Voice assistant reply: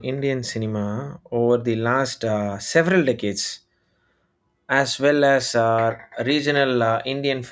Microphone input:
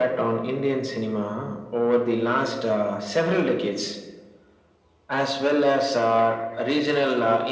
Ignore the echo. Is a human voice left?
No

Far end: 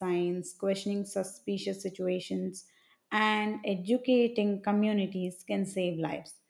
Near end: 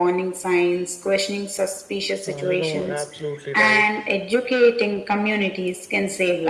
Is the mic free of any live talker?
No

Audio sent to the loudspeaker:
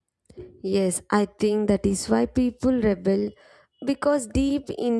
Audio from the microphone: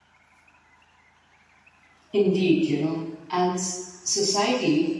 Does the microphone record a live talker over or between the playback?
Yes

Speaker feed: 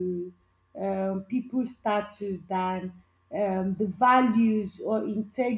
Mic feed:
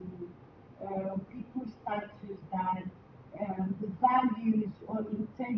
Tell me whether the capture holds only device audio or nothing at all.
Yes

